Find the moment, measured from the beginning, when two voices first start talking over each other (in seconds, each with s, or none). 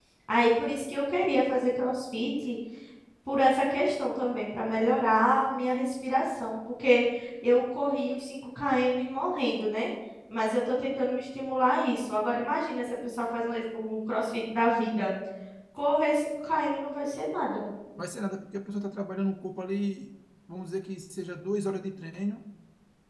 none